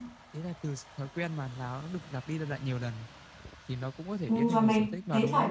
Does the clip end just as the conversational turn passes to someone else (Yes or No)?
Yes